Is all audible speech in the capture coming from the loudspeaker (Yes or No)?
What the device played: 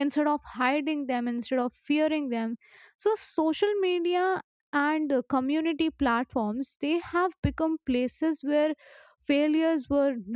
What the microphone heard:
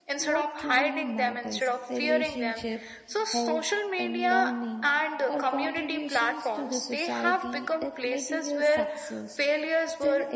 No